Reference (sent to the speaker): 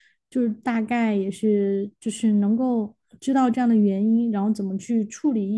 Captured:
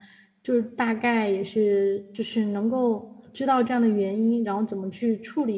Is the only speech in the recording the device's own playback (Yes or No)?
Yes